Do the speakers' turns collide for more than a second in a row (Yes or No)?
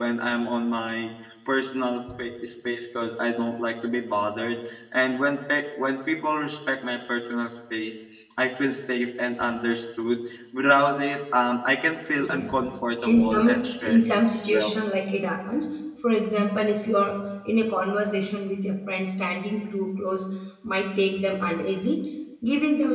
Yes